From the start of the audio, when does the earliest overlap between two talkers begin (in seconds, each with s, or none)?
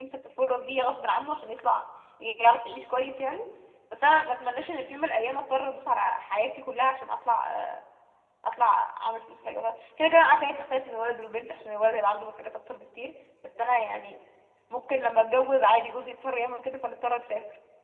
none